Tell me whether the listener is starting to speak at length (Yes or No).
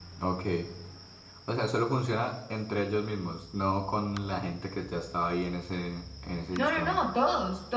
Yes